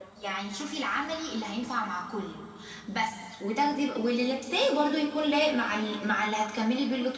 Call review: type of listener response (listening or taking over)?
taking over